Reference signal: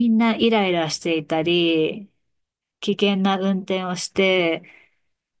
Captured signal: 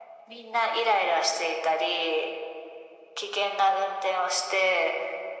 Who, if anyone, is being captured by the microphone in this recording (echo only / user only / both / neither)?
echo only